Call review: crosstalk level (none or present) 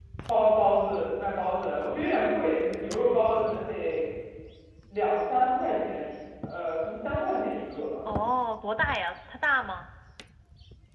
none